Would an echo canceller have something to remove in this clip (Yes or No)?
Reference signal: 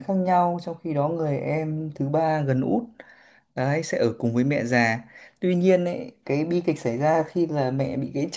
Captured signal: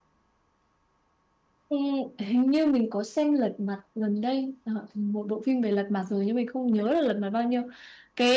No